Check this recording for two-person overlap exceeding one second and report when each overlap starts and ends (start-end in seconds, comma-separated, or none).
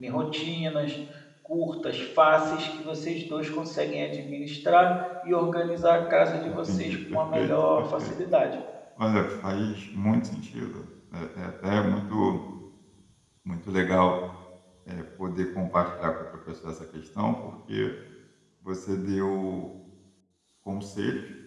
6.5-8.1